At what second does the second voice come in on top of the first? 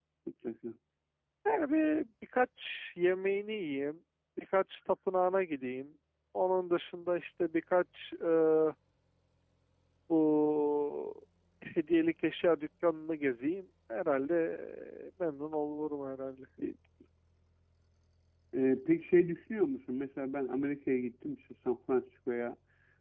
none

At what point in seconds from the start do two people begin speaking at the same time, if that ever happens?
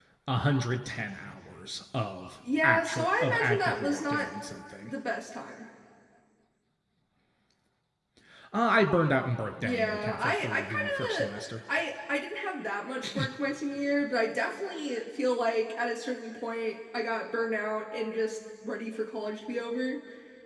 2.6 s

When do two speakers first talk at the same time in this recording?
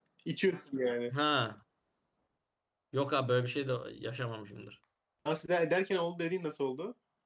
none

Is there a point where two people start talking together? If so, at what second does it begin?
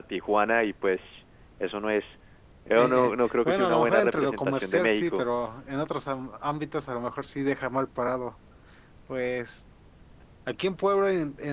2.7 s

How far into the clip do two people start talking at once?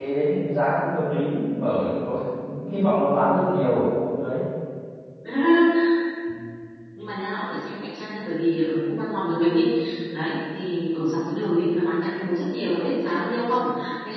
none

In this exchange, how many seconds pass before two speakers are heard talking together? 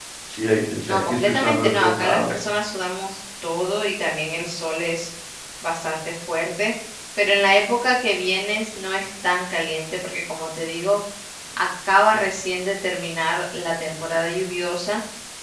0.8 s

